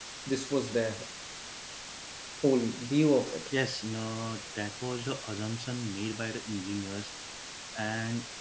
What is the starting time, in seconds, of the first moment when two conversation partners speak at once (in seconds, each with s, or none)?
none